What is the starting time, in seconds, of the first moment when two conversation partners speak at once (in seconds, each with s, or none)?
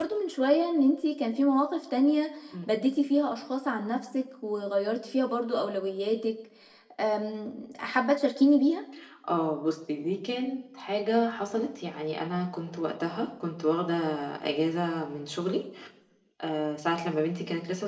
none